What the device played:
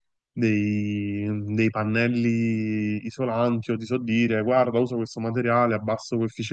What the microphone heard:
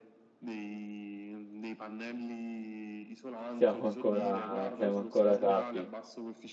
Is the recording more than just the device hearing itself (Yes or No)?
Yes